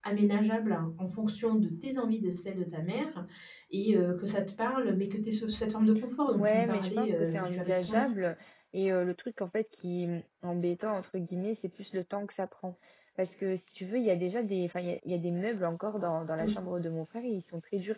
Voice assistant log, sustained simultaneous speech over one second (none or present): present